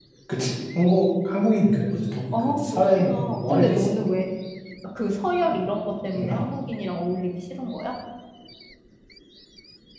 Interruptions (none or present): present